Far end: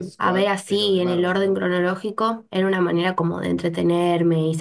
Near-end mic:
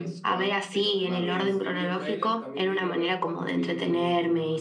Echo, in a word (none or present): present